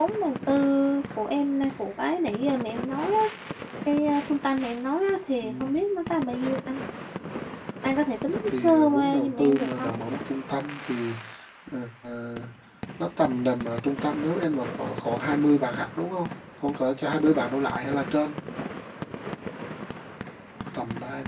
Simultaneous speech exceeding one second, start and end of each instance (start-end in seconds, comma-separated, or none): 8.5-9.9